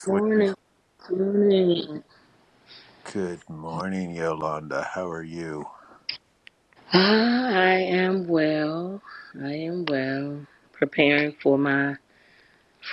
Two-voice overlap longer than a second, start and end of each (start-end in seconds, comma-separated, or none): none